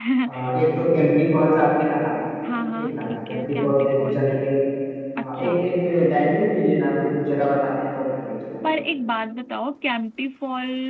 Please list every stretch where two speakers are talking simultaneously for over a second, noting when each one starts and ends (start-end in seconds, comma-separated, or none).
2.8-4.2